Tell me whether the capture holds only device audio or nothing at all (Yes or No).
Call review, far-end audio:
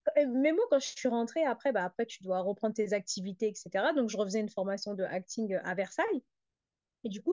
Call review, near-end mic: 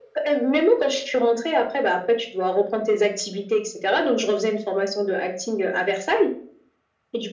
Yes